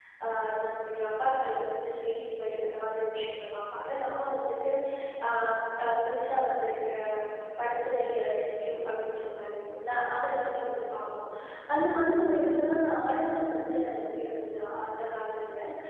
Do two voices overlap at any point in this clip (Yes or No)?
No